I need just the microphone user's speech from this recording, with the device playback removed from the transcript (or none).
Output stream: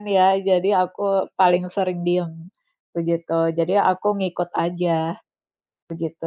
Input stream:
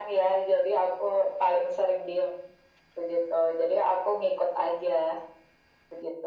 none